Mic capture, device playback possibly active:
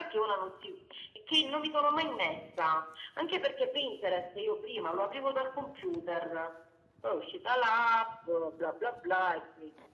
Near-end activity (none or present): none